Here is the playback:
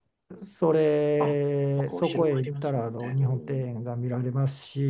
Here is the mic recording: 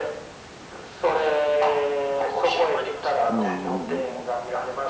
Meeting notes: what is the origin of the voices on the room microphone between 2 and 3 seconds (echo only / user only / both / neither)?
echo only